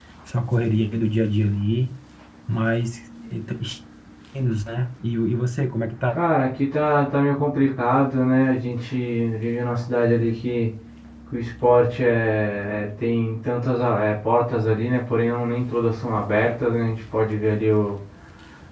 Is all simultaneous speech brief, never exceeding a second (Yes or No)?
Yes